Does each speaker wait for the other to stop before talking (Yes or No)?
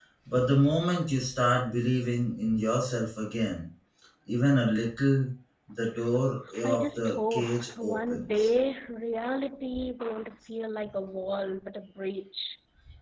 No